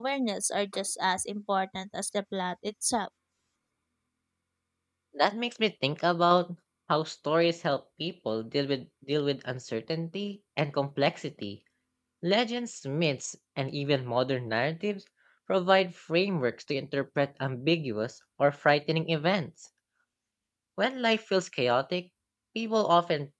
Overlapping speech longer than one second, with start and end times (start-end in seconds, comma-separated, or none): none